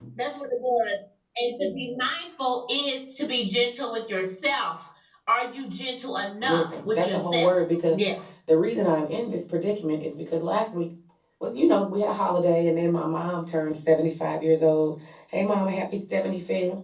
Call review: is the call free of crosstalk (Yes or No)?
No